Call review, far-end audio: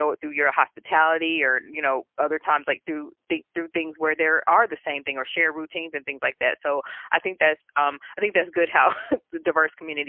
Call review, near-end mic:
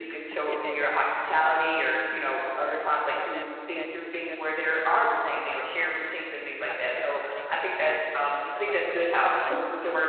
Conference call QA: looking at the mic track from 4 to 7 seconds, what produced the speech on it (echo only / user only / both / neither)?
both